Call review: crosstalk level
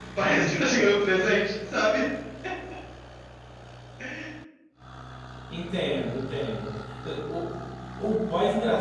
none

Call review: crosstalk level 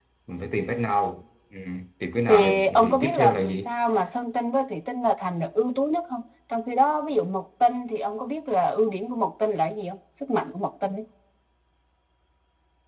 present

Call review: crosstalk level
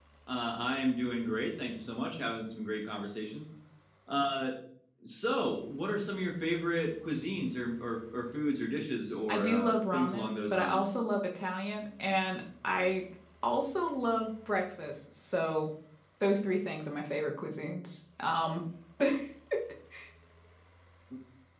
present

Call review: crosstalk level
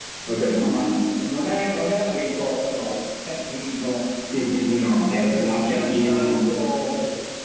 present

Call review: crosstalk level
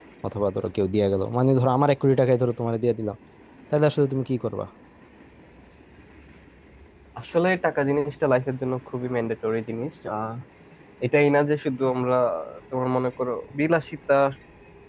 none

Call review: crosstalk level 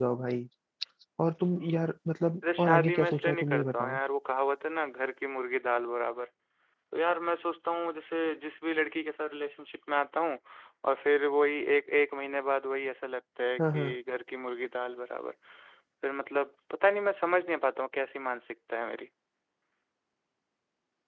present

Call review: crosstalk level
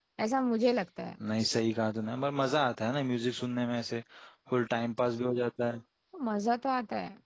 none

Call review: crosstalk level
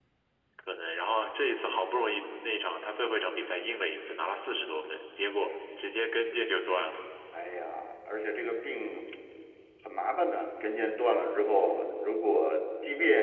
none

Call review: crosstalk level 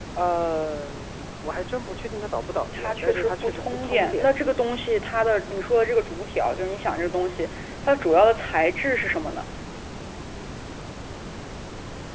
present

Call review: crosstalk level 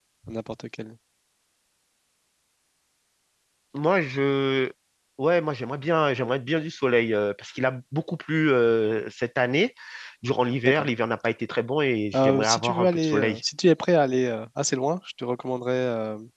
present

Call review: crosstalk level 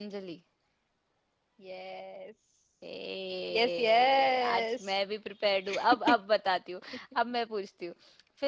present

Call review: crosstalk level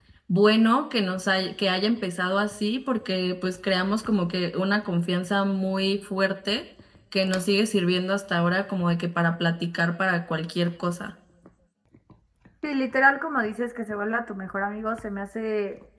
none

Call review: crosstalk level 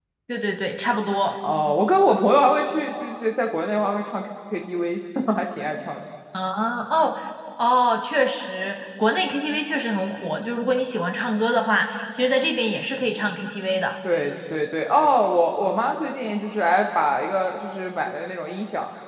none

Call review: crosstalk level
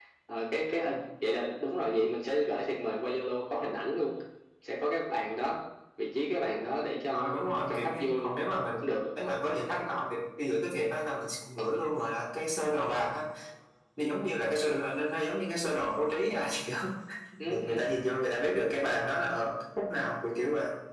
present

